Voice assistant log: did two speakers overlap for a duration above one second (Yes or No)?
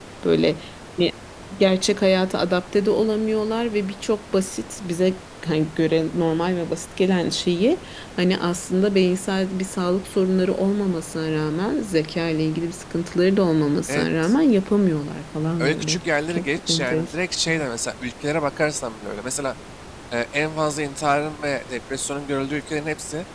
Yes